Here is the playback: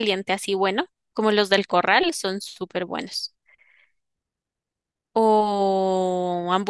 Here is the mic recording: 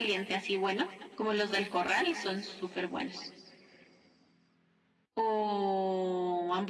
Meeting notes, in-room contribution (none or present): none